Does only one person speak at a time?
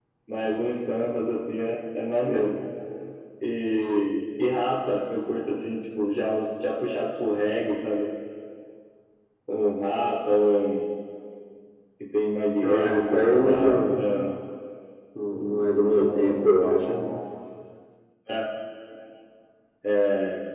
No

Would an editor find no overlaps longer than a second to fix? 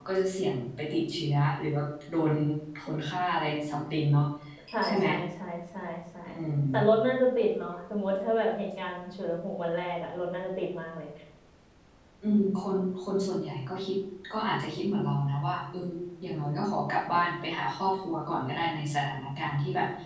Yes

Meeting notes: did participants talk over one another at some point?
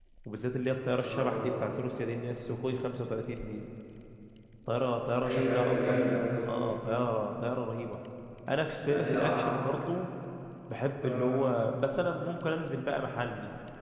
Yes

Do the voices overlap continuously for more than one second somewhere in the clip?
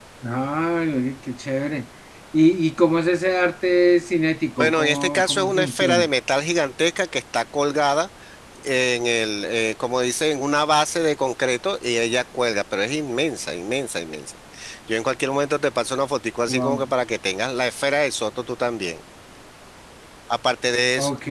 Yes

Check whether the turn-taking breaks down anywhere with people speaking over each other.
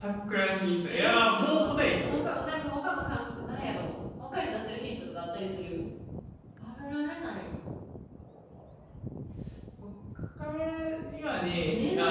Yes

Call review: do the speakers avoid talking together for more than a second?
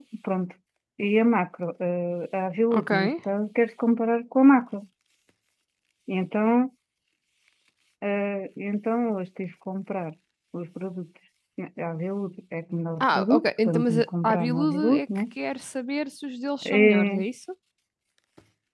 No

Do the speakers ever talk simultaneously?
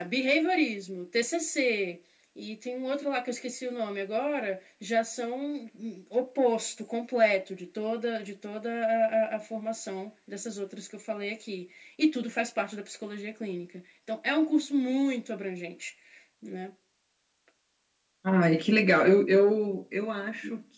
No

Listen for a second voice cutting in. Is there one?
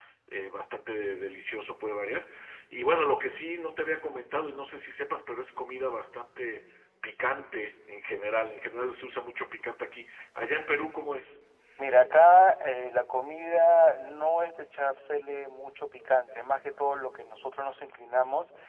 No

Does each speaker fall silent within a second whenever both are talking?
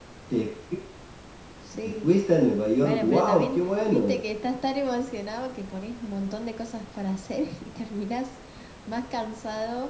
No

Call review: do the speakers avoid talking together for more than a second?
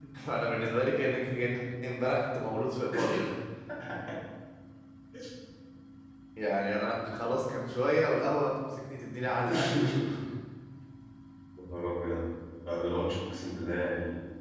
Yes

